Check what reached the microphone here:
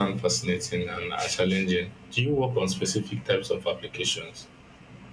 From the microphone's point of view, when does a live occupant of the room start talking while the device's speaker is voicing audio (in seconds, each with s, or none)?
none